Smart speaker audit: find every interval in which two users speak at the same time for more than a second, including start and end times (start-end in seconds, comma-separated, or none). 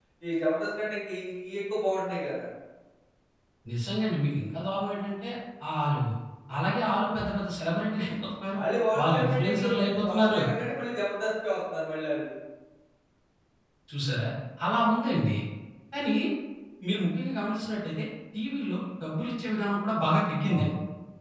9.0-10.4